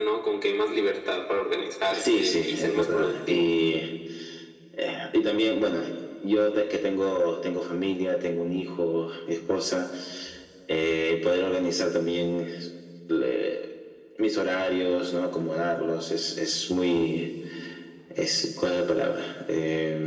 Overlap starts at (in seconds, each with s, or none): 1.9 s